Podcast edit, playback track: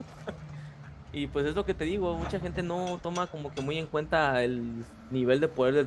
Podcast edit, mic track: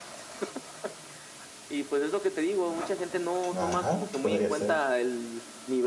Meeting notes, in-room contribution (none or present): present